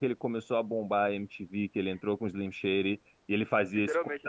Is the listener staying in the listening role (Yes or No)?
Yes